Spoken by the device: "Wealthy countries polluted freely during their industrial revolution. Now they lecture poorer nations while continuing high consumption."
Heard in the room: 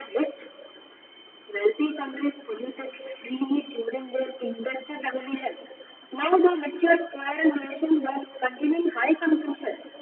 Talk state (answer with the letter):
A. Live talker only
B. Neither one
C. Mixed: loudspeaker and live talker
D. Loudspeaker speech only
D